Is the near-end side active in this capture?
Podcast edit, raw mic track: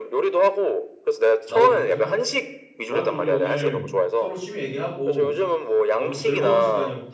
Yes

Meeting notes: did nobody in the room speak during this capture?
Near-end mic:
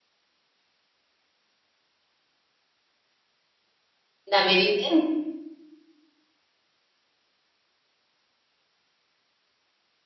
No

